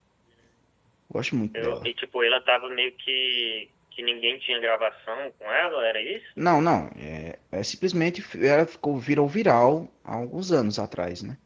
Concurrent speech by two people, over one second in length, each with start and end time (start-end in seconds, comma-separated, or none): none